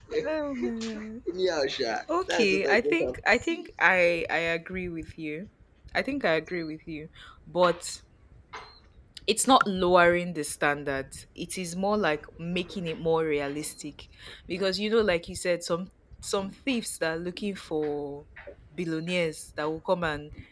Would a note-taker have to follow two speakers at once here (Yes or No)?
Yes